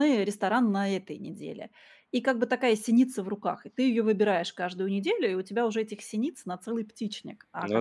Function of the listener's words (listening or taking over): listening